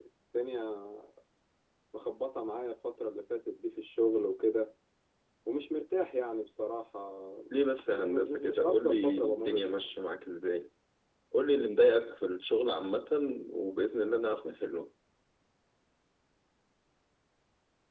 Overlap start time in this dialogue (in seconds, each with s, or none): 7.9 s